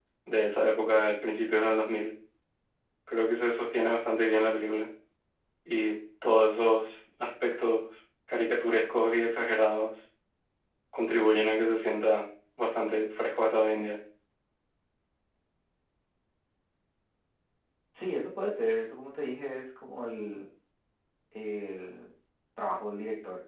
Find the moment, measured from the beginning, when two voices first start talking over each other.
none

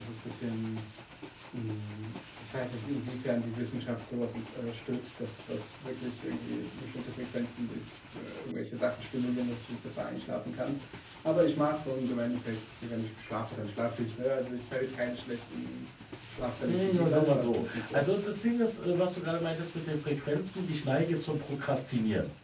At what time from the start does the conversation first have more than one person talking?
16.7 s

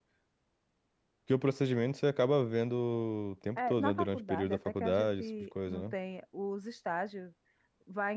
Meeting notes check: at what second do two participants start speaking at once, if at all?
3.6 s

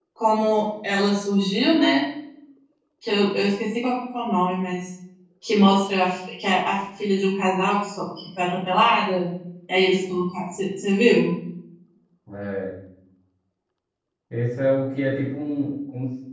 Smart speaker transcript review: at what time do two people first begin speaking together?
none

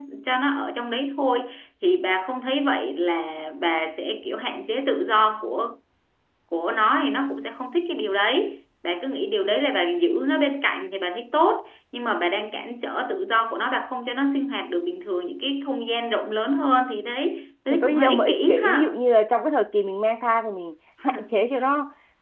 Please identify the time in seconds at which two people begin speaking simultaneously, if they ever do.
17.7 s

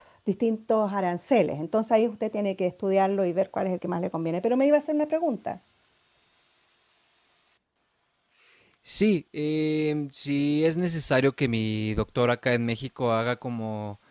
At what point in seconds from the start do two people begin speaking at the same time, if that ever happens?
none

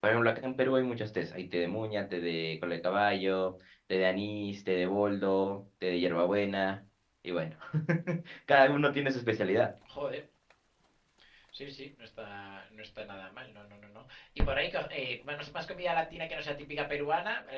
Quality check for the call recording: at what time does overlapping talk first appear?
none

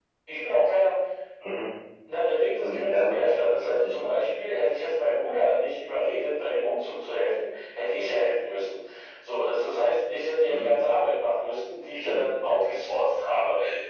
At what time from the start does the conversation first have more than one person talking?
2.6 s

